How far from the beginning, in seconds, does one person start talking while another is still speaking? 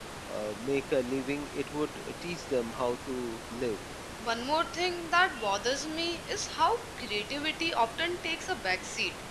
none

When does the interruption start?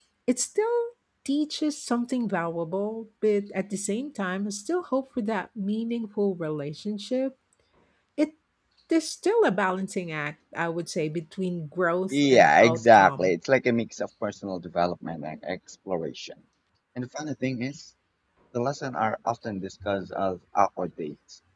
12 s

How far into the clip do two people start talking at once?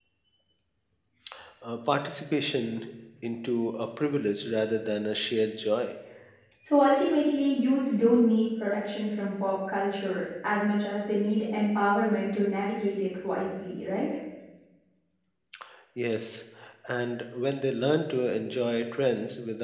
none

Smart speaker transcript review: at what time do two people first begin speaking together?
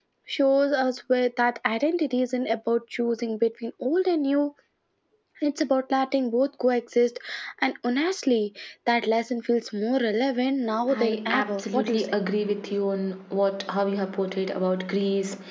11 s

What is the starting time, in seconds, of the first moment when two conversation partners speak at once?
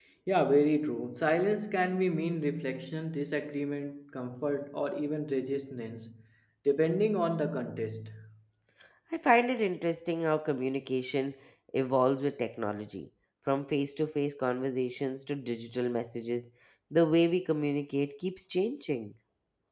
none

